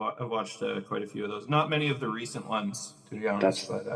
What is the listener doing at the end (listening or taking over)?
taking over